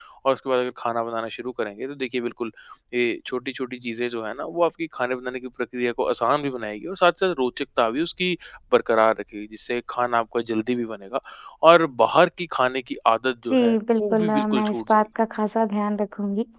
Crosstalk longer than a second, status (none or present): present